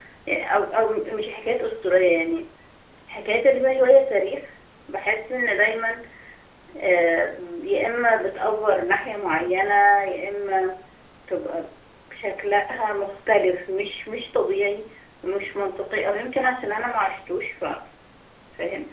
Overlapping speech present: No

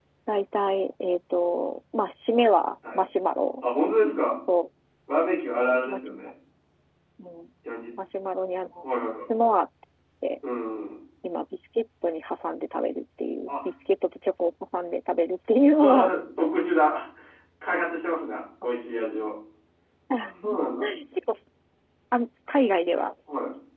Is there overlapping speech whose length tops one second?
No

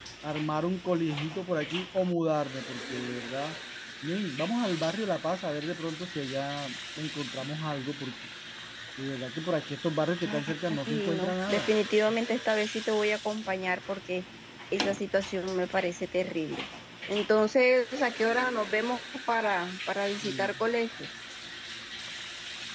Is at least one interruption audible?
Yes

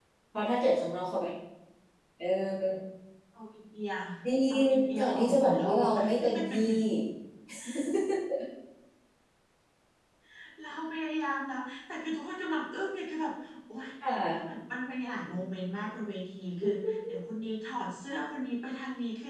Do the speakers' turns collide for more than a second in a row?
Yes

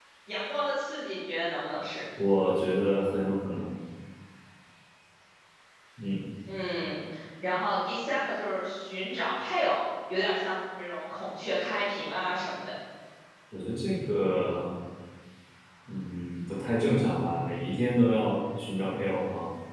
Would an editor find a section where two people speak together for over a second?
No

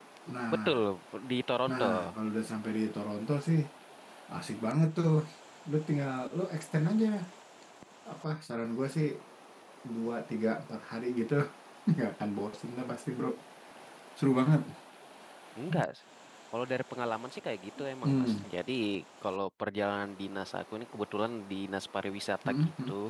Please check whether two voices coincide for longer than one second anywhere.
No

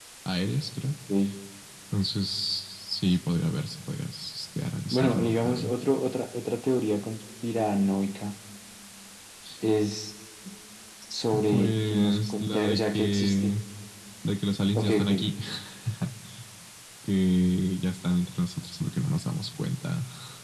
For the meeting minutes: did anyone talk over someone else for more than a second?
Yes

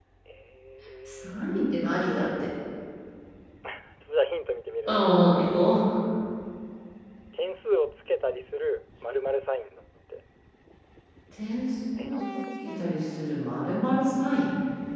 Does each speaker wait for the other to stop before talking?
No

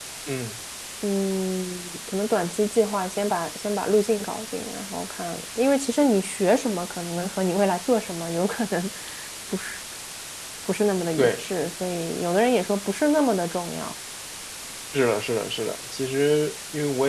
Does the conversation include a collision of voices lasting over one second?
No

